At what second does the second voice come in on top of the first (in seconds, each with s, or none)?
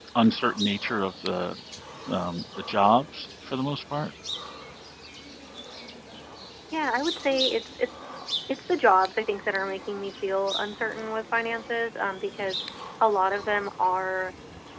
none